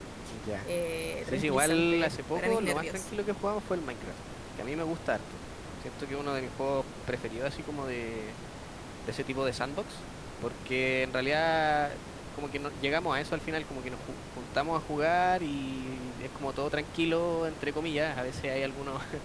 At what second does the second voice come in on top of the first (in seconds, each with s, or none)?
1.2 s